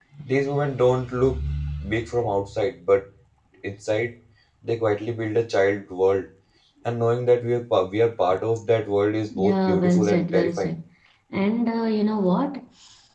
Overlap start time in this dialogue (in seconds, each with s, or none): 9.3 s